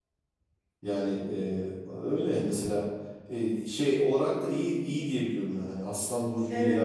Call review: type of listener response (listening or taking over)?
taking over